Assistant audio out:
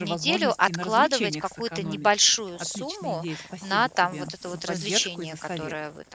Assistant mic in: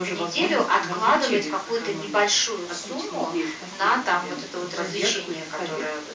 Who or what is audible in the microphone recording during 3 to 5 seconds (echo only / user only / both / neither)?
echo only